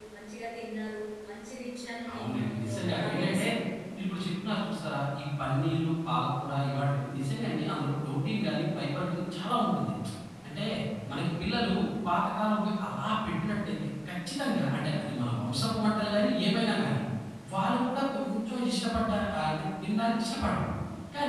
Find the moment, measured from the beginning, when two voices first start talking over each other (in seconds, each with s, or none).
2.1 s